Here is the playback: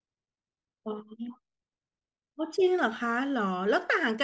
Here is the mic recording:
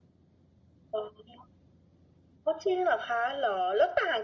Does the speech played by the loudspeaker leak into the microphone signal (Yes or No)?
Yes